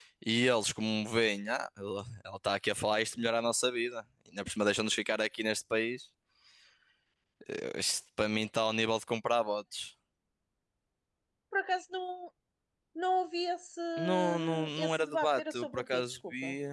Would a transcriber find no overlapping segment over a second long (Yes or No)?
No